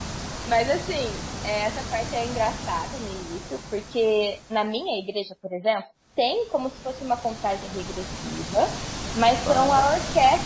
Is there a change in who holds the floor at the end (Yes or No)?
No